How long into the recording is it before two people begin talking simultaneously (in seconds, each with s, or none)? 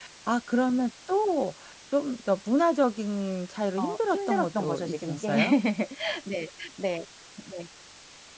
3.8 s